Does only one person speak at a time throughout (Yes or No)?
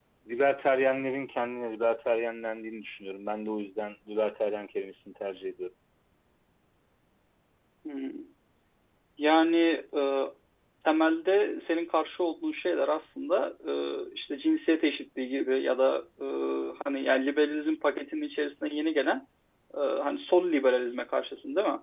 Yes